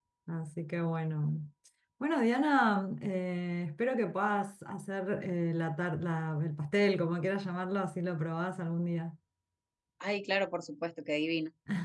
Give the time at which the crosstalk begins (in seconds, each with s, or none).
none